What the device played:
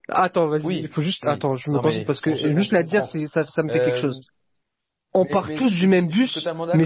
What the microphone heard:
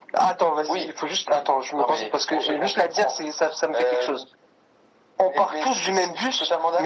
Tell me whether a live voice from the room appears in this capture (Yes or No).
No